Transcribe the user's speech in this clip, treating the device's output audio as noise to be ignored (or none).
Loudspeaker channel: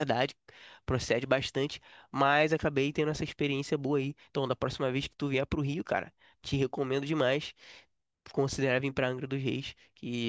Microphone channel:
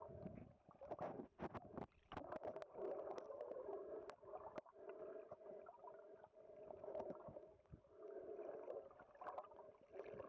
none